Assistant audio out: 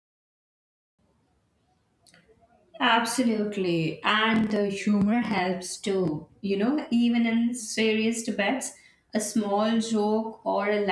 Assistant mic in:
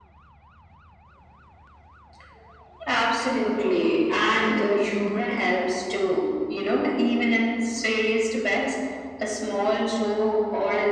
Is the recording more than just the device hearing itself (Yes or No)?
No